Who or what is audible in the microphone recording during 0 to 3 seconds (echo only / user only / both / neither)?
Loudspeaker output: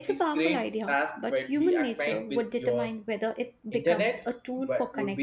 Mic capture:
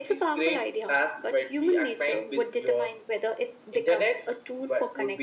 echo only